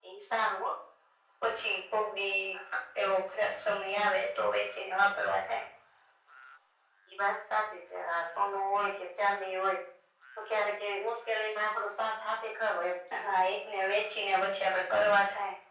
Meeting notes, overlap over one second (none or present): none